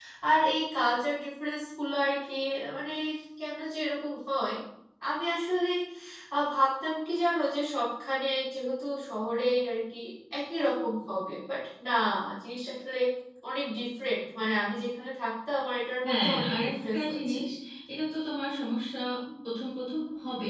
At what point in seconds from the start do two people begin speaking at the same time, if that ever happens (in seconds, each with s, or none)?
16.0 s